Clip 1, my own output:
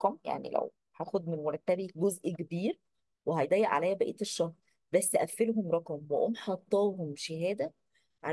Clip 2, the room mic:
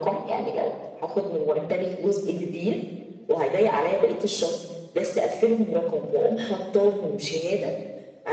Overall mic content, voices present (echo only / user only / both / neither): echo only